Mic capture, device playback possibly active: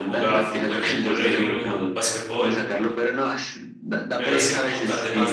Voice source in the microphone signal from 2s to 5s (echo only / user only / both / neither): both